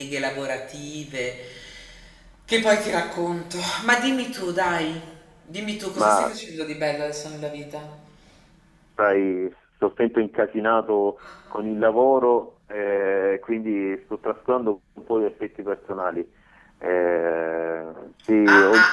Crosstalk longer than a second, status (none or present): none